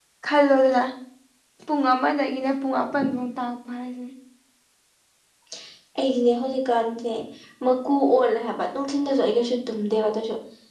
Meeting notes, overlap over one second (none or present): none